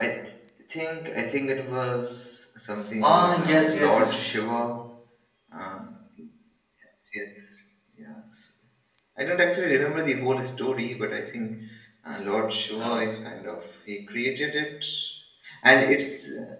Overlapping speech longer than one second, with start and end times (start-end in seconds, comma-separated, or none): 3.0-4.4